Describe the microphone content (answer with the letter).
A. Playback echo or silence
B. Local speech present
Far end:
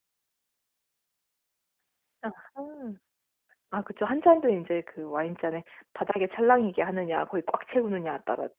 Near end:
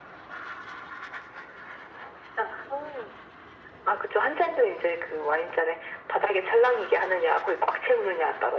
A